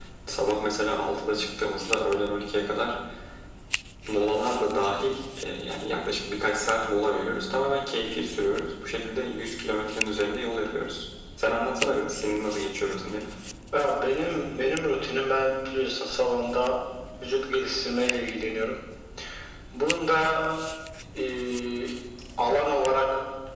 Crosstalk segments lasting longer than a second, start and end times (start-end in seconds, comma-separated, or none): none